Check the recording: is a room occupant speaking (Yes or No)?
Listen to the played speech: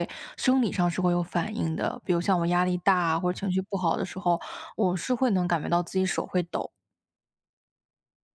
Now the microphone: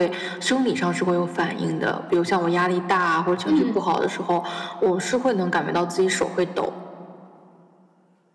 Yes